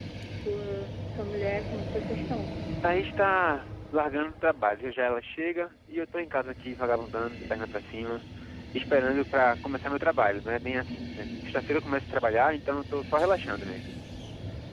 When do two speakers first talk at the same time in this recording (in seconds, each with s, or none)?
none